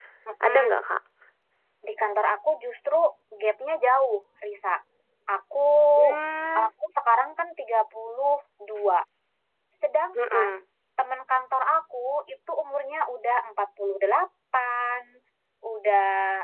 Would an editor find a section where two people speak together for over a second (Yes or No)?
No